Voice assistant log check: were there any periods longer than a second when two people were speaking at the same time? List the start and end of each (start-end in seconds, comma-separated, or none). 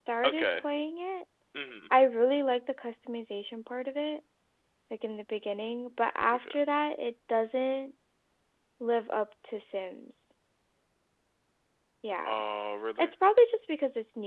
none